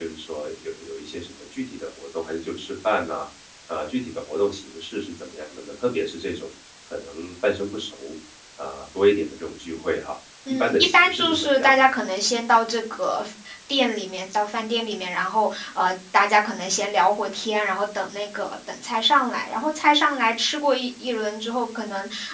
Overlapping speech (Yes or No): Yes